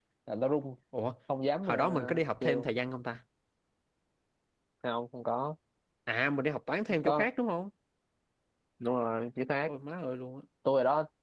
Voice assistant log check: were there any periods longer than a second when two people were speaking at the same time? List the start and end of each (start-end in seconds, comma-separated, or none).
none